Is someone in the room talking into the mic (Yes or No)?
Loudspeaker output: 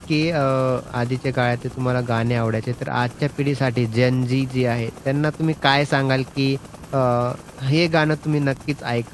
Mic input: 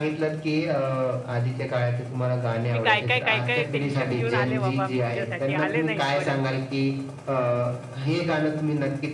Yes